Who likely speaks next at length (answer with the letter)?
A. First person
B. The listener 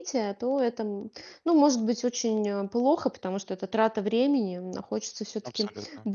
A